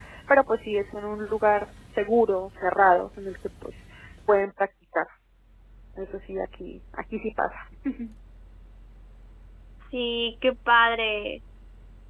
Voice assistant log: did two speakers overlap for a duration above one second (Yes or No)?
No